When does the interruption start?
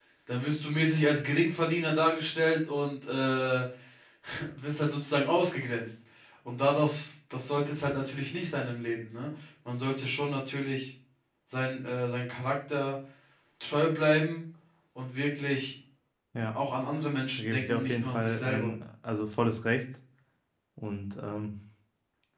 17.4 s

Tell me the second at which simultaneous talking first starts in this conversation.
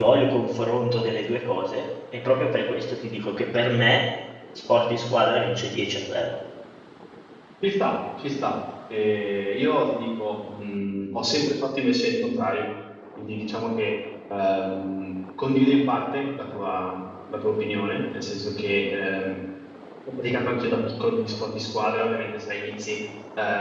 none

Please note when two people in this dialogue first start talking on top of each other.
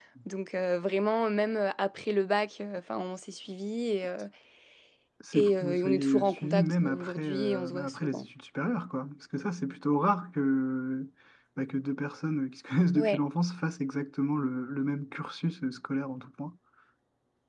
5.3 s

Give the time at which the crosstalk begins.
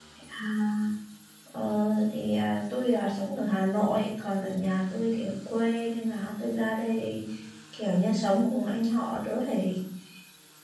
none

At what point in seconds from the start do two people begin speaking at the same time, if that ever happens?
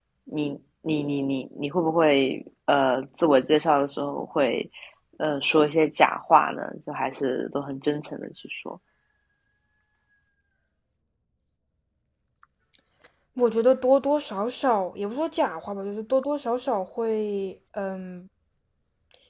none

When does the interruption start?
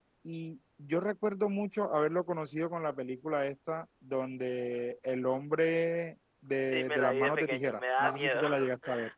6.7 s

